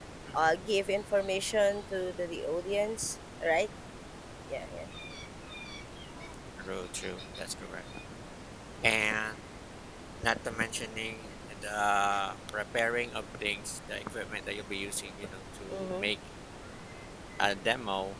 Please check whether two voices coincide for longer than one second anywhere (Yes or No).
No